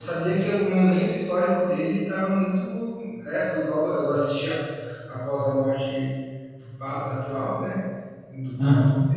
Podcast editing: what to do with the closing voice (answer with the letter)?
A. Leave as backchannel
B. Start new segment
A